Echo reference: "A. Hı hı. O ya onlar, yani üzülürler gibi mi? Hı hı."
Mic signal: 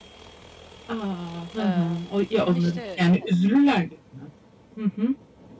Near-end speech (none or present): present